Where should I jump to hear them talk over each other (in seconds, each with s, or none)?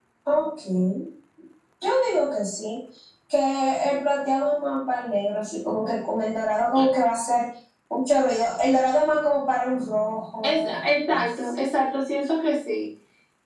10.4 s